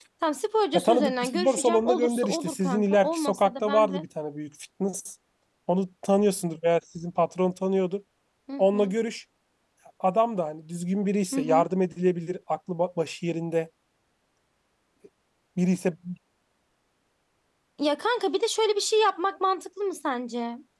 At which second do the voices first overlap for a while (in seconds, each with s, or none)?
0.7 s